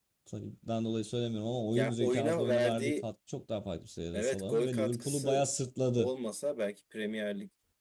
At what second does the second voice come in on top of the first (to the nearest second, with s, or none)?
2 s